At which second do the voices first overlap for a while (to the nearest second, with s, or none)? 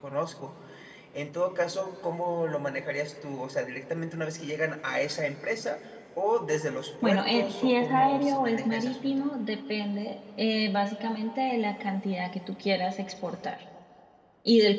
7 s